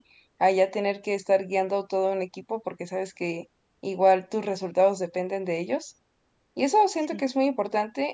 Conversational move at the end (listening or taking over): listening